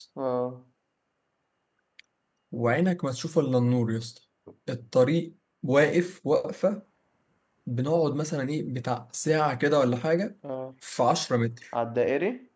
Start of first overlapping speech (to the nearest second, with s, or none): none